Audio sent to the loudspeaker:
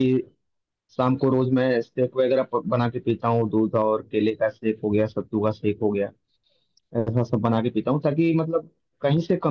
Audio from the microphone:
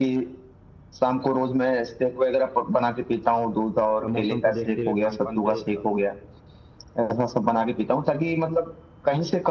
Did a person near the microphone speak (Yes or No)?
Yes